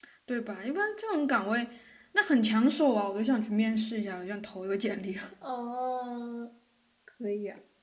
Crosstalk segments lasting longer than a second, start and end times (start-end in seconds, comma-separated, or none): none